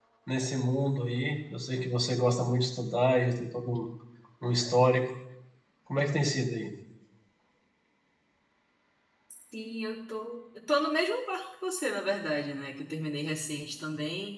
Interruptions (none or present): none